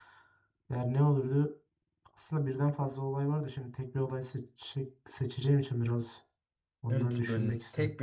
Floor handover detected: Yes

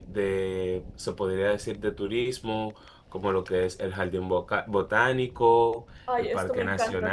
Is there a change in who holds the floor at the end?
Yes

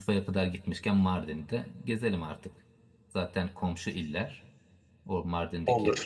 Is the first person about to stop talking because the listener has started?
No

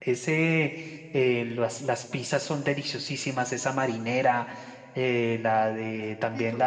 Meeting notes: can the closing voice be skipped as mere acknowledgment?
Yes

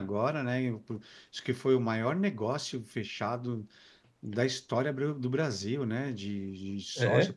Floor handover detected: Yes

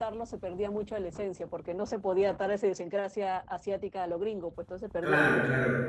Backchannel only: No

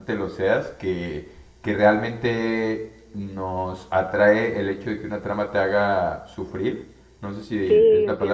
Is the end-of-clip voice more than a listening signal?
No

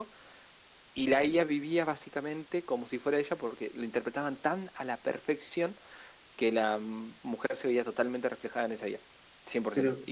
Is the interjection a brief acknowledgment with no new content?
Yes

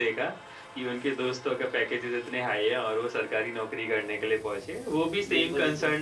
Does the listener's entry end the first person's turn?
No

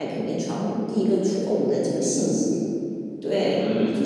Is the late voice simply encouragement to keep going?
Yes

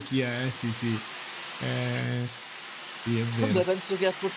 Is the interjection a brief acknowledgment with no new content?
No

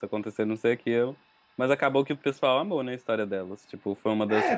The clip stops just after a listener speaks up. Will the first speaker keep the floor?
No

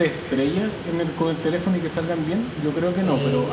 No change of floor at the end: No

